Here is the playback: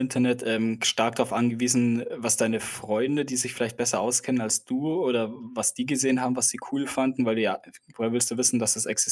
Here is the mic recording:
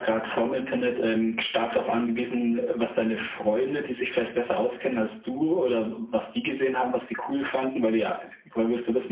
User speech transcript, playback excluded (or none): none